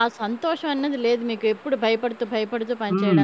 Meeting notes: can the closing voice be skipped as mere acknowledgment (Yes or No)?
No